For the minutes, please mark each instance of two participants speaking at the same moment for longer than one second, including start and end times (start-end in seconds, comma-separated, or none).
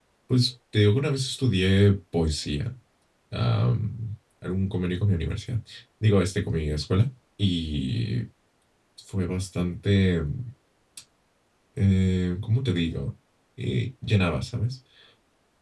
none